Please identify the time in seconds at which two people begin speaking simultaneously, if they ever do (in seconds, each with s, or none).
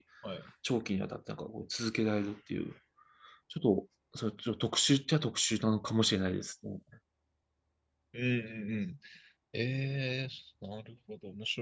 none